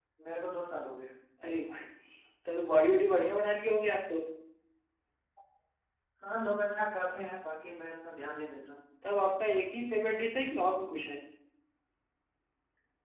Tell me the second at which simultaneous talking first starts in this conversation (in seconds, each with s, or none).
none